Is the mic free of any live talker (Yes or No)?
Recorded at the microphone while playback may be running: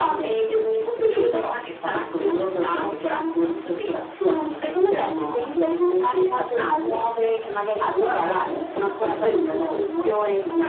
Yes